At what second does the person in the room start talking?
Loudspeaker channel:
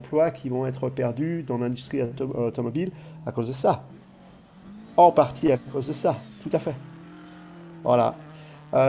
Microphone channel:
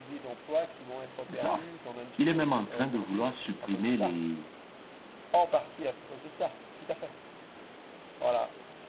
1 s

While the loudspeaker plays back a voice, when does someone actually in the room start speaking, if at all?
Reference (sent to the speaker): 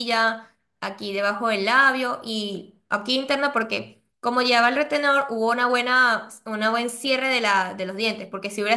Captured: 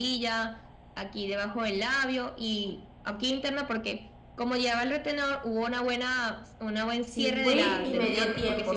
7 s

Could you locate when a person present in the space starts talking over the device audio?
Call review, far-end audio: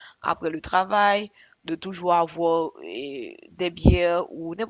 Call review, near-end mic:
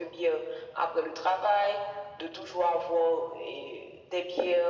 none

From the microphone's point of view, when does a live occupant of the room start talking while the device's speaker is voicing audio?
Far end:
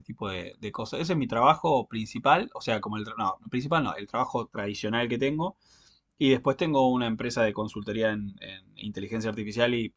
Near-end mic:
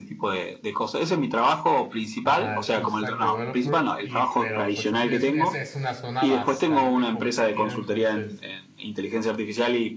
2 s

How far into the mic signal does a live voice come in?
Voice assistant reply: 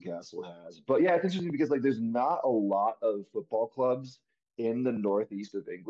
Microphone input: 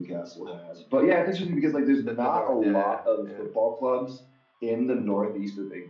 2 s

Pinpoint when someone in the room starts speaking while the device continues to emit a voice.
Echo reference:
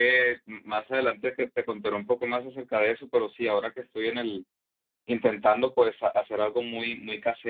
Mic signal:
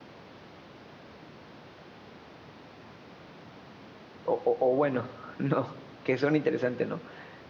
4 s

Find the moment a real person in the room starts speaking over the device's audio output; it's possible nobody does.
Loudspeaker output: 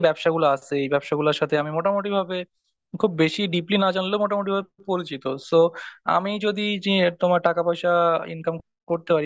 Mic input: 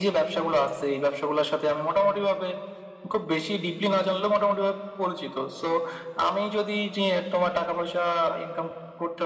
none

